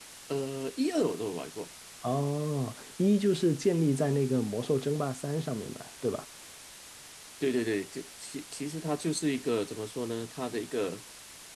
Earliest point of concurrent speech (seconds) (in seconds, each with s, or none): none